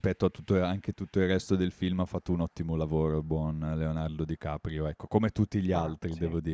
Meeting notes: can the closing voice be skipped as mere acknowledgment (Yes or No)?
Yes